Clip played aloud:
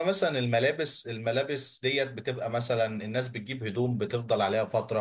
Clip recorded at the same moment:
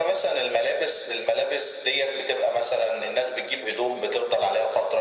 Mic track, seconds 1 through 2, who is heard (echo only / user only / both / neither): echo only